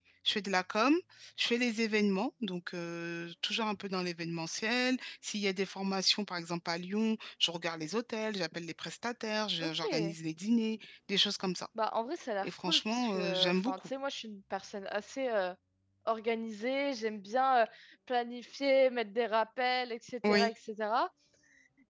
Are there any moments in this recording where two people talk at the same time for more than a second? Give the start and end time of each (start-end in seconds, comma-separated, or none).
12.4-13.9